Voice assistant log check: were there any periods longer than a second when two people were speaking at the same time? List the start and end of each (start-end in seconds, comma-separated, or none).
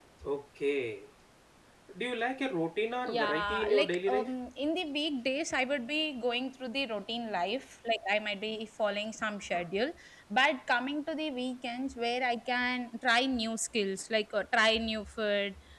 3.1-4.3